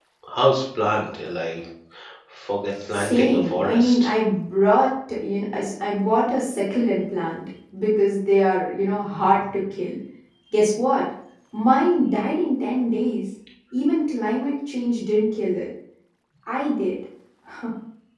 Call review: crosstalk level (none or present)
present